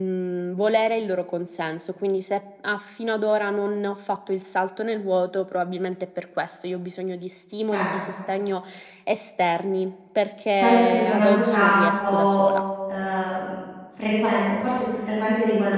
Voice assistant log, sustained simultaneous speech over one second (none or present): present